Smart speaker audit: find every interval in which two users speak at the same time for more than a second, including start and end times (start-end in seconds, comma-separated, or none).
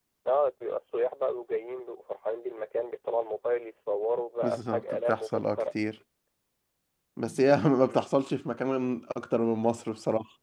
4.4-5.6